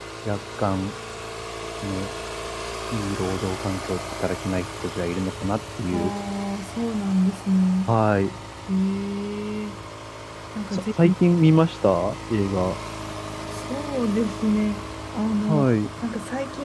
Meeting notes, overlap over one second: none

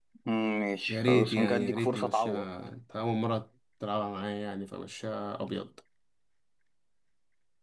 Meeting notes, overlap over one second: present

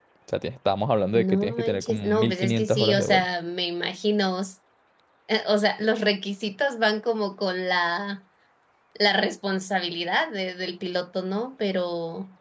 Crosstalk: present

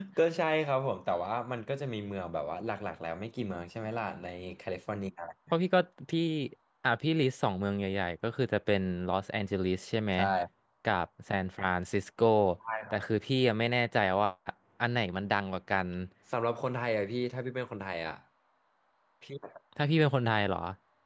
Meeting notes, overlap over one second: none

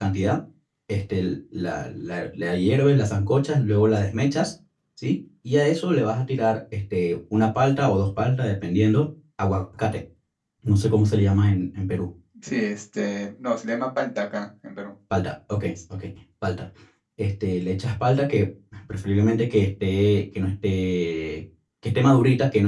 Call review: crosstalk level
none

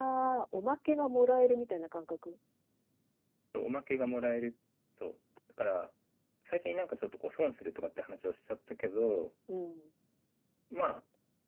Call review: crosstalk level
none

